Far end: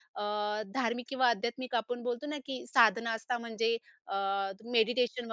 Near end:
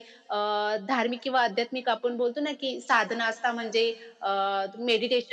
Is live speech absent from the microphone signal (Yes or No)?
Yes